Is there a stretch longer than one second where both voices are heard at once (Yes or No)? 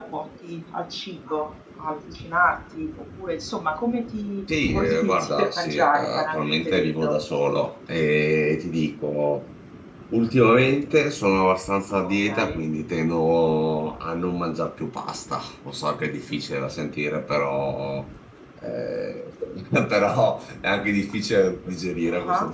Yes